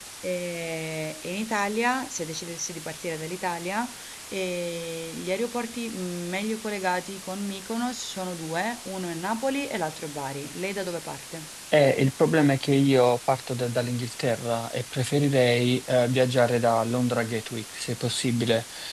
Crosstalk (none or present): none